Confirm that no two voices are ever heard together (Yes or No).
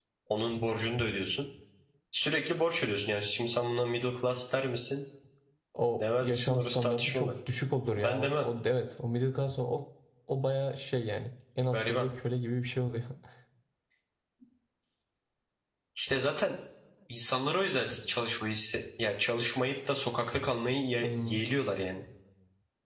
No